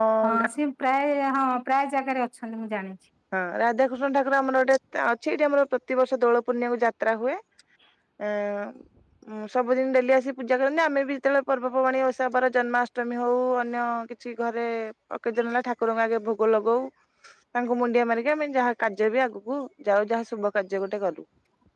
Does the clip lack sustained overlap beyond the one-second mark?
Yes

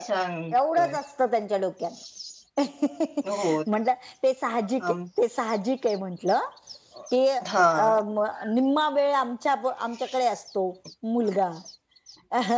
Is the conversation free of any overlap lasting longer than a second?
Yes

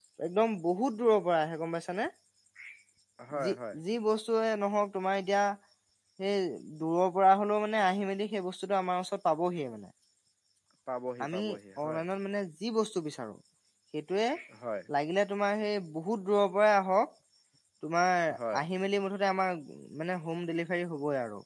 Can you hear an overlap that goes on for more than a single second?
No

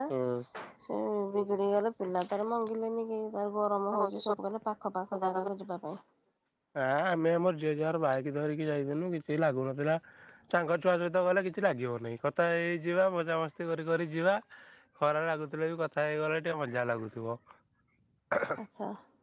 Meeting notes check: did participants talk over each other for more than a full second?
No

